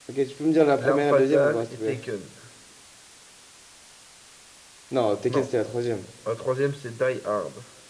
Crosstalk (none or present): present